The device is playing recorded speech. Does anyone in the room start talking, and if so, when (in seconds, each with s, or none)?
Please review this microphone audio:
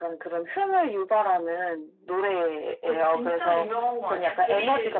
2.8 s